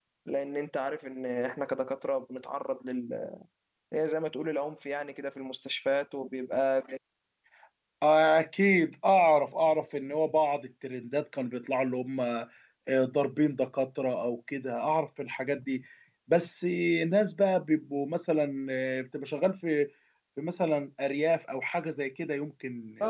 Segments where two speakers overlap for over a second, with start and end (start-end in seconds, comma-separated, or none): none